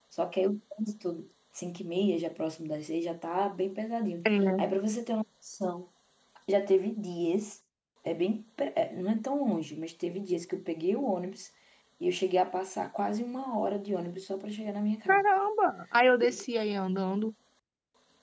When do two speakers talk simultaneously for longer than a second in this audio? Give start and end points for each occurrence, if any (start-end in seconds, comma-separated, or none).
none